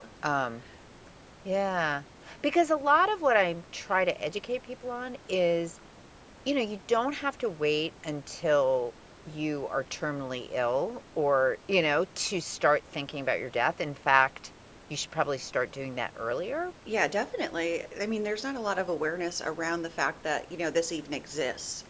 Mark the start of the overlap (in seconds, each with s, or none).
none